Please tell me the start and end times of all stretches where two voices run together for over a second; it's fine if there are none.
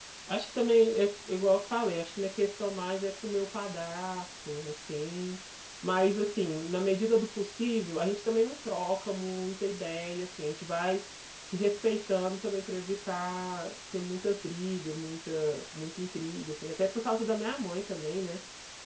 none

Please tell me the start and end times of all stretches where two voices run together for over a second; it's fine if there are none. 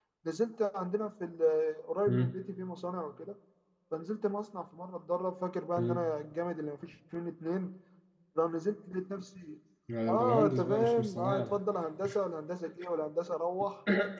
10.1-11.6

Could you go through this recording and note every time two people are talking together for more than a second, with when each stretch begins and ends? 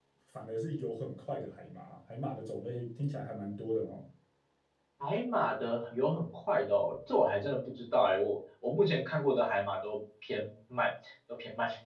none

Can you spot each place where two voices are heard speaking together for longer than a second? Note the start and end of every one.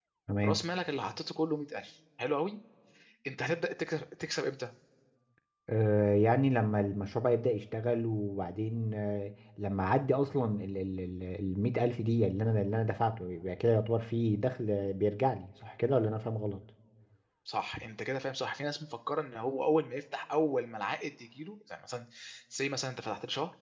none

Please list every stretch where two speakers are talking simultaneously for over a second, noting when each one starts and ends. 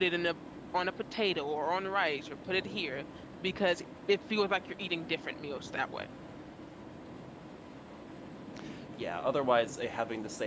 none

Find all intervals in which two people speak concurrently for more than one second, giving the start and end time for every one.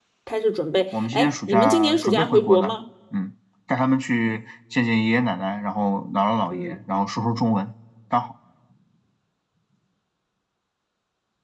1.0-2.8

